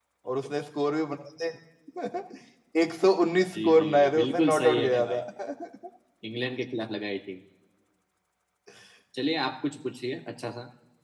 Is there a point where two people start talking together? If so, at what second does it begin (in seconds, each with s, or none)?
3.5 s